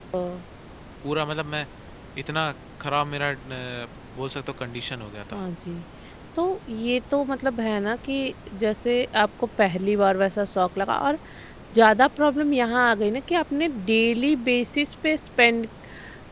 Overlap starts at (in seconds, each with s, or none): none